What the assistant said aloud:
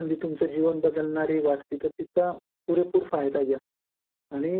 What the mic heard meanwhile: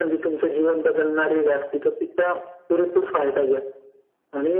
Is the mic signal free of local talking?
Yes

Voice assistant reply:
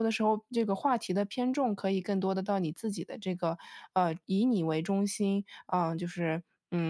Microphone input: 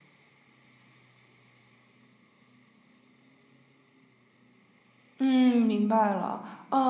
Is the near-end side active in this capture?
Yes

